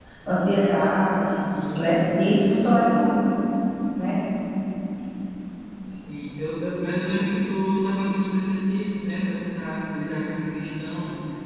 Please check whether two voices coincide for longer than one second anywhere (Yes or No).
No